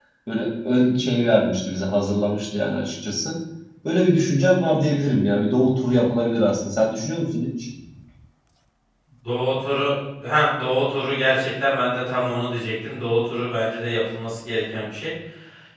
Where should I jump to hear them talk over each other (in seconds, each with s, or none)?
none